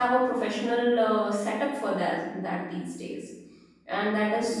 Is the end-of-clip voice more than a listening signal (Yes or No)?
No